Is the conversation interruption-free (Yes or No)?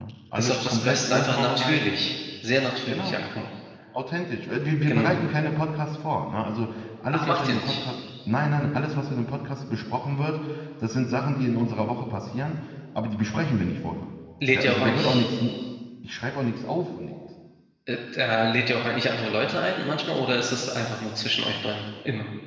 No